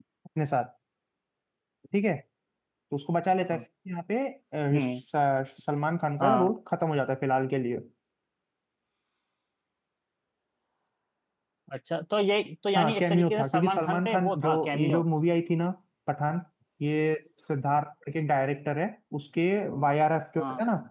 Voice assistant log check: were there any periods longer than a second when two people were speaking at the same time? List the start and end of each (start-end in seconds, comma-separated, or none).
12.8-15.0